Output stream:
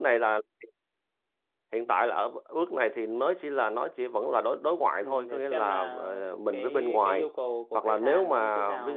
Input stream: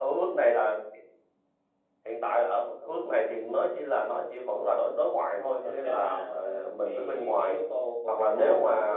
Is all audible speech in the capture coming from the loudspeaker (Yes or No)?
Yes